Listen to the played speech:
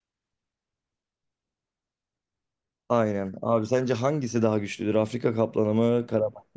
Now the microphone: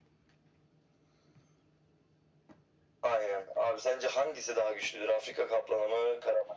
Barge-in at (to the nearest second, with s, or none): none